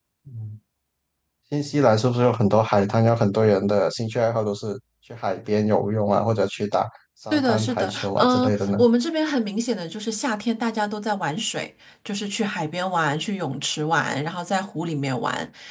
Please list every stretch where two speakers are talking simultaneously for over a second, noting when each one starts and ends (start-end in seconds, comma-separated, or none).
7.3-8.7